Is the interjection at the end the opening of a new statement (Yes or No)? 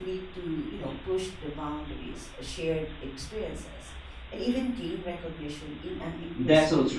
Yes